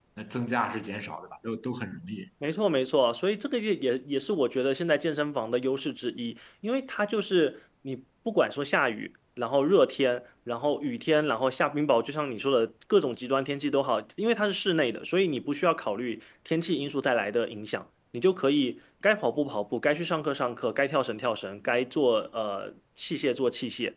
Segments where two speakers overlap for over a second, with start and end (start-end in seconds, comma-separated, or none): none